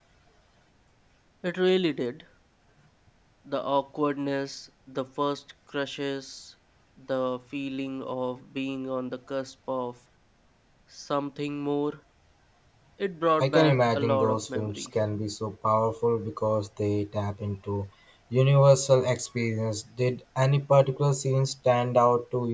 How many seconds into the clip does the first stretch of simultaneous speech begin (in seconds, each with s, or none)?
13.4 s